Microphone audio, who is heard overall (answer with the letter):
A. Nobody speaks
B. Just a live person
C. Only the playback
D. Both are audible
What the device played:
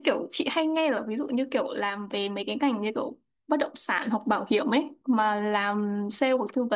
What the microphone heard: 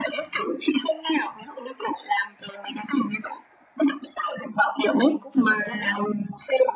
D